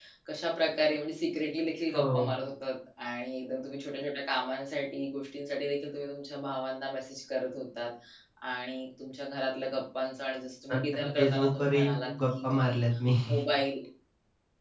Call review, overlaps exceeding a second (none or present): present